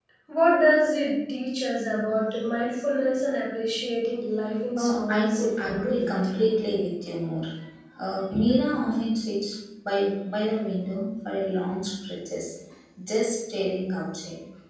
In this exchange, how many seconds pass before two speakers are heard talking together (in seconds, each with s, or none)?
4.8 s